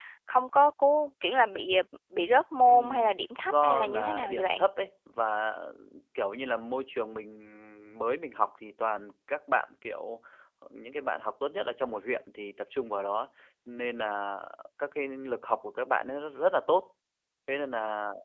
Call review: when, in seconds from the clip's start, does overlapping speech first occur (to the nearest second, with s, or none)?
3 s